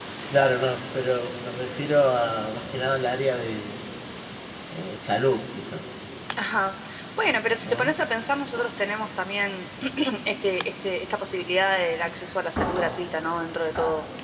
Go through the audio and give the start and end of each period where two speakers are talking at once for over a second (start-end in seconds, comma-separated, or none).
none